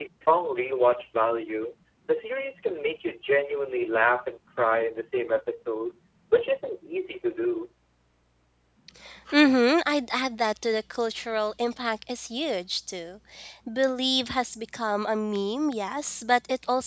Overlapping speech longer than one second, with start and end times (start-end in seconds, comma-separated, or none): none